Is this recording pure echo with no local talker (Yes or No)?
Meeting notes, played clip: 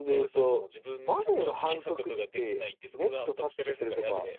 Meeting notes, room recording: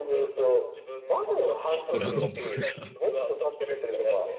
No